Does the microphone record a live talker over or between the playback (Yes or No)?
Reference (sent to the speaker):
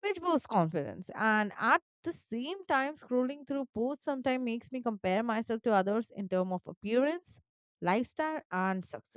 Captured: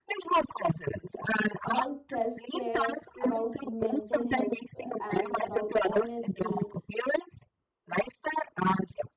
Yes